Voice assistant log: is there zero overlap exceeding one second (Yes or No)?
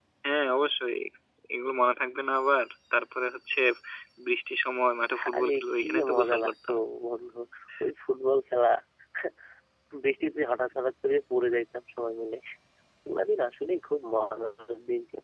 No